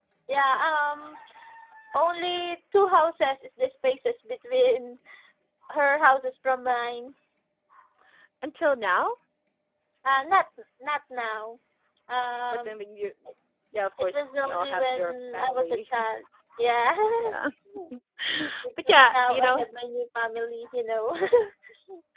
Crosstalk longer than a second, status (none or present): present